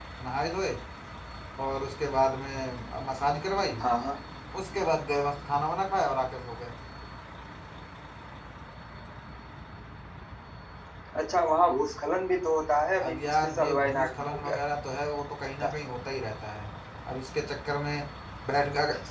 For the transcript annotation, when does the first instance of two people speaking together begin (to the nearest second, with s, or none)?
13 s